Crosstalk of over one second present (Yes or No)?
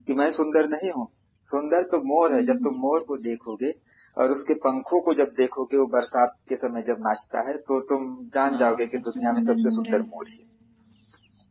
Yes